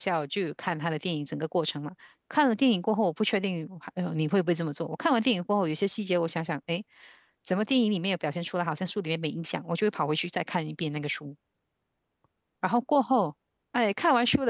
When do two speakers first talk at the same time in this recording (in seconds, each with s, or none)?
none